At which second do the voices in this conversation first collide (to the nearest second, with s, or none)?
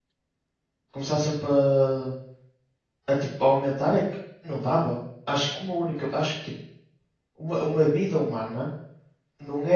none